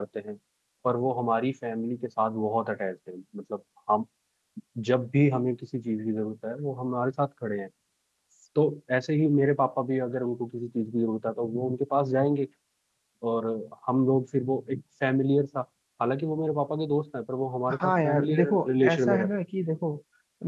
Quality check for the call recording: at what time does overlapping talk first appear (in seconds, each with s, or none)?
17.7 s